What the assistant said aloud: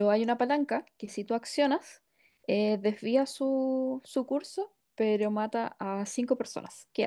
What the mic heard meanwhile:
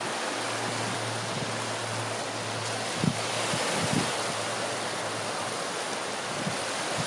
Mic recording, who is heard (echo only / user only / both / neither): neither